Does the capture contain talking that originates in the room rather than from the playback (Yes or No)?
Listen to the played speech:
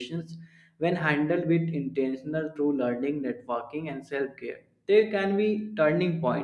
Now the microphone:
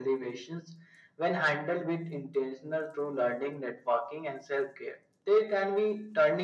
No